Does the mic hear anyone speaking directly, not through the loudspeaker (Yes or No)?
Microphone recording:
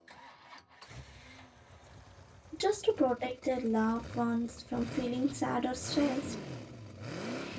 Yes